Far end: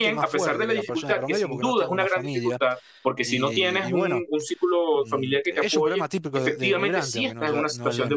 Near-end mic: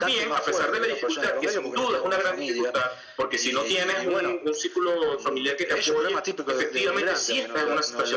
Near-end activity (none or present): none